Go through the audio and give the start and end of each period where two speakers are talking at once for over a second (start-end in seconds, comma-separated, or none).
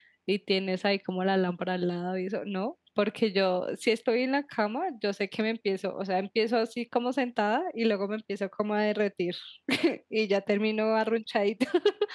none